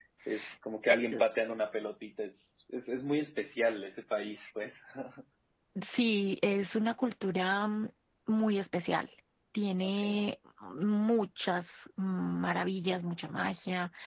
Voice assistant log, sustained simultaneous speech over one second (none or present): none